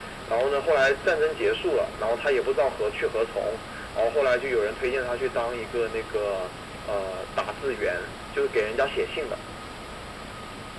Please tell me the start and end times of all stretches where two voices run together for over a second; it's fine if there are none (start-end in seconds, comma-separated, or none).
none